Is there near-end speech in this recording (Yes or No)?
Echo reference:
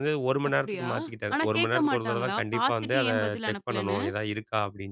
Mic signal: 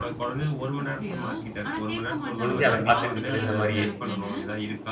Yes